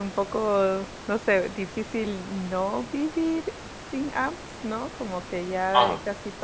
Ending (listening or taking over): listening